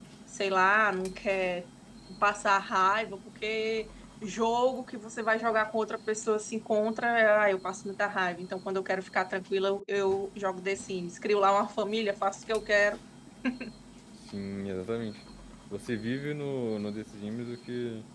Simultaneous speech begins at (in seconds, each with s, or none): none